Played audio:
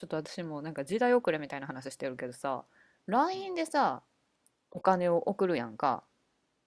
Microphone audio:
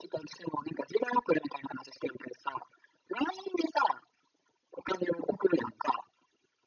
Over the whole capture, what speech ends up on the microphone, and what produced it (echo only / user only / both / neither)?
echo only